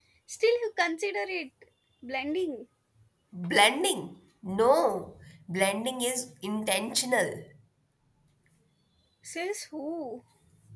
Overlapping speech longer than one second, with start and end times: none

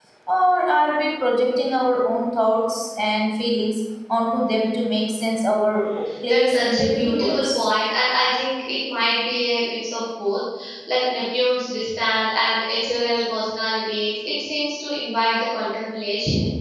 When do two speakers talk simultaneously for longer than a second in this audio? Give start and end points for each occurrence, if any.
6.3-7.7

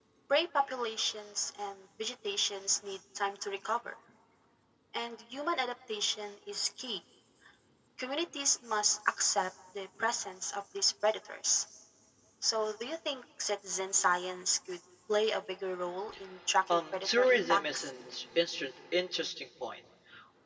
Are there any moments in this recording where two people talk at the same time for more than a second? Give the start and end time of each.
16.7-17.9

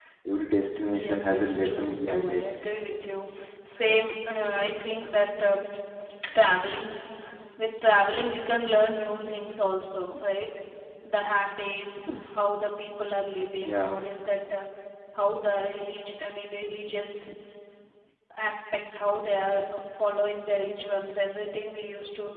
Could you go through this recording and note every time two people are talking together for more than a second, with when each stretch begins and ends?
1.0-2.4

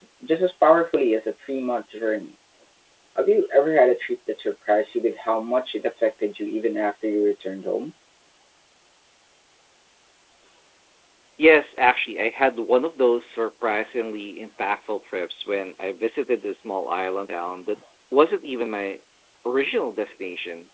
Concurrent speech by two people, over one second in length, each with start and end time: none

